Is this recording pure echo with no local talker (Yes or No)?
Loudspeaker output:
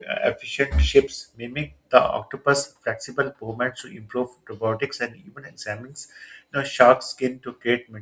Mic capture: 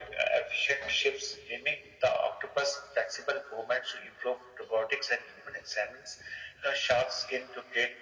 Yes